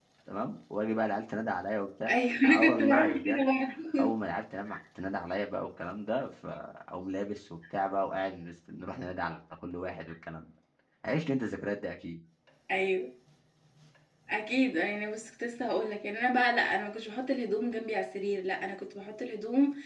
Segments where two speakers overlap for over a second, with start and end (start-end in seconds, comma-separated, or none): 2.1-3.4